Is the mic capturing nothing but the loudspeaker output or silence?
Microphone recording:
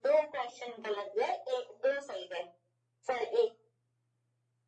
Yes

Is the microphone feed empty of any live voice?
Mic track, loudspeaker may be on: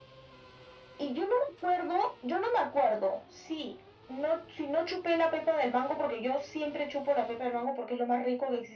Yes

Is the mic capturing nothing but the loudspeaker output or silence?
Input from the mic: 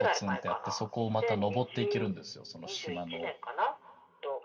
No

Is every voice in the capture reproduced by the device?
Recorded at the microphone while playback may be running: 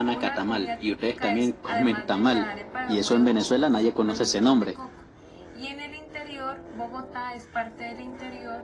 No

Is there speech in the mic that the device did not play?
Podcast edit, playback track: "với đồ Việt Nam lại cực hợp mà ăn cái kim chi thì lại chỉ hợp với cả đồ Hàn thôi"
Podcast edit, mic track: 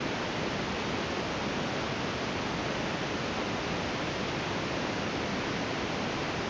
No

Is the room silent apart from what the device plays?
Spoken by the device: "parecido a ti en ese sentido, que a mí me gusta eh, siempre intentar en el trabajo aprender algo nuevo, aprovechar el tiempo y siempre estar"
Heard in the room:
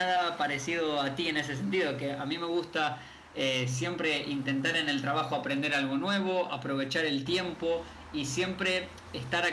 Yes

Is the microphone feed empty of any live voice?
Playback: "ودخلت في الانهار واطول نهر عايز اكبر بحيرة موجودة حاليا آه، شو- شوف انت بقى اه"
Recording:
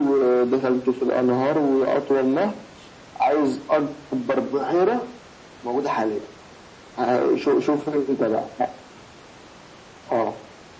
Yes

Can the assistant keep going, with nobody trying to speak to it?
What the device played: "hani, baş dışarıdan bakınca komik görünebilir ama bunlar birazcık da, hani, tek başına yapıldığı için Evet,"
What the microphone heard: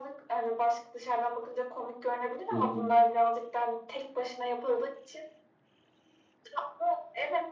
No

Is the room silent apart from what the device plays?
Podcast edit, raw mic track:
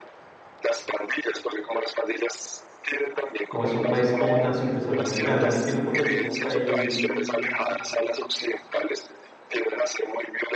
No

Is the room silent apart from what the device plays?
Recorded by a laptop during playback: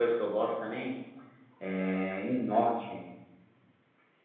No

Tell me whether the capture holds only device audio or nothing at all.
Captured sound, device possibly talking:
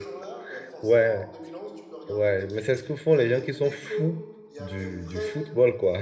No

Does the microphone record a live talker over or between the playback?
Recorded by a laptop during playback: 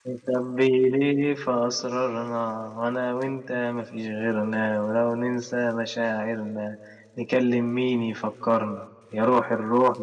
Yes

